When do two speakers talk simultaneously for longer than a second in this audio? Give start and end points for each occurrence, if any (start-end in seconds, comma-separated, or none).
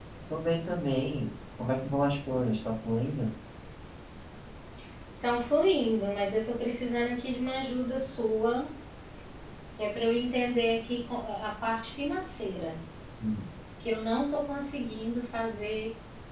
none